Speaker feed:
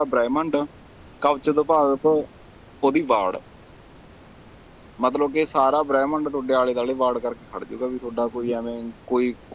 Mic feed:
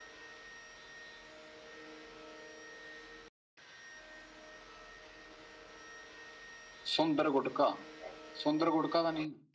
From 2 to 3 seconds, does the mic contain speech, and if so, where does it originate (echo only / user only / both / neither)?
neither